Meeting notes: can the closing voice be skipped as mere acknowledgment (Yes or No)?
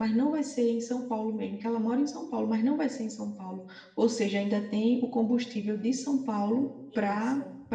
Yes